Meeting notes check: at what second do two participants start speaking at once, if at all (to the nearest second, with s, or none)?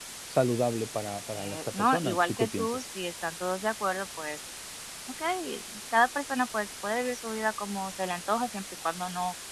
1 s